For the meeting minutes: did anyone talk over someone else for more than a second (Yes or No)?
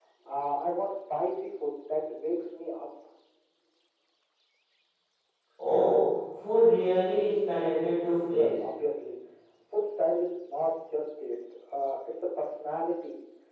No